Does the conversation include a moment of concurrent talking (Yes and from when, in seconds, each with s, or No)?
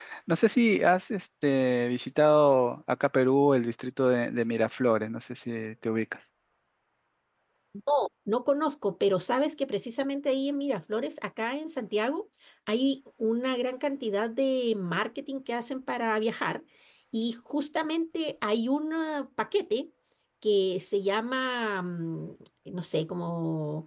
No